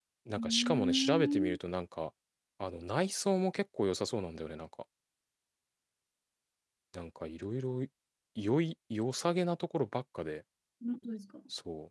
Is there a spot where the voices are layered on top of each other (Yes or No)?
Yes